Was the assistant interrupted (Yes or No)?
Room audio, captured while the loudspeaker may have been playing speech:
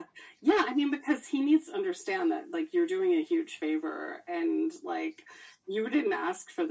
No